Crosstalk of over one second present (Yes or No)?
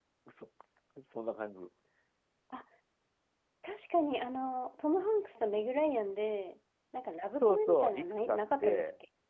Yes